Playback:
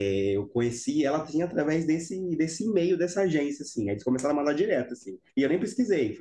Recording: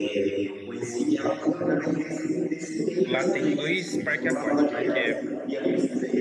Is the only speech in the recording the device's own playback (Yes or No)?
No